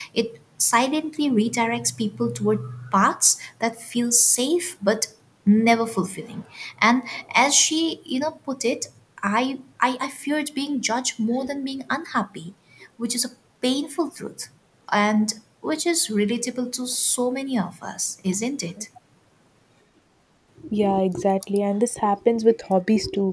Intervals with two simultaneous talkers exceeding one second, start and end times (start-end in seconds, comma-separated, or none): none